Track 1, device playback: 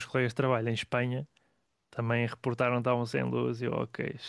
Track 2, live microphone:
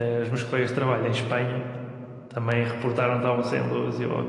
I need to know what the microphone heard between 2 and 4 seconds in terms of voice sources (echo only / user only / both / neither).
echo only